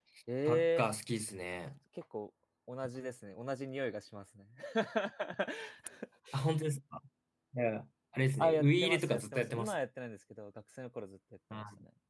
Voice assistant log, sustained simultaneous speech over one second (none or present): present